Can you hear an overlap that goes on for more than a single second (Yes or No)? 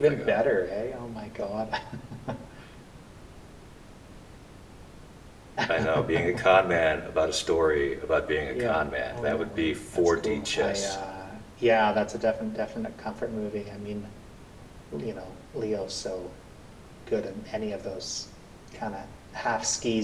Yes